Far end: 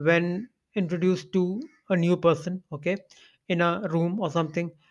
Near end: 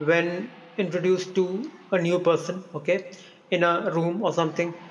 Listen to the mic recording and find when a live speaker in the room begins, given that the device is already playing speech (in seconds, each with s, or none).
none